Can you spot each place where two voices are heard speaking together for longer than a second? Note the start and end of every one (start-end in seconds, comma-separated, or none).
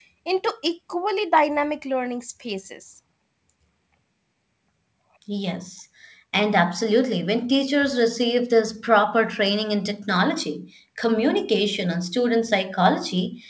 none